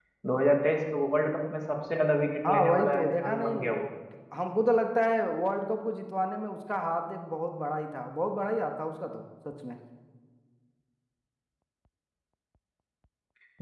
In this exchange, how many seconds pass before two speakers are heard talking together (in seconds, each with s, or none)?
2.4 s